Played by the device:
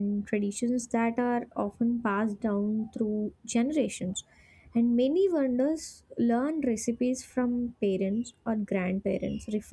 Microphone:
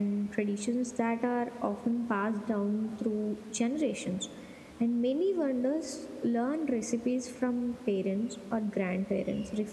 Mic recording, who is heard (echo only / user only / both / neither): echo only